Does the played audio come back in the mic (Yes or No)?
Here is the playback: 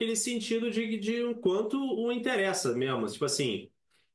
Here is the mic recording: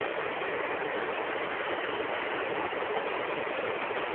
No